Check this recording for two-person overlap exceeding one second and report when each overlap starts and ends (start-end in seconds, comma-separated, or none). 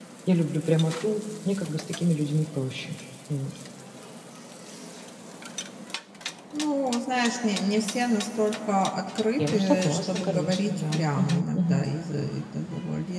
9.5-11.8